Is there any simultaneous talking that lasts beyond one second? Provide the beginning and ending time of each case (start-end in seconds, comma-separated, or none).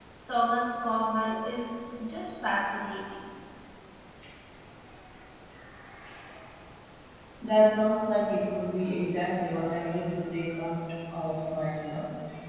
none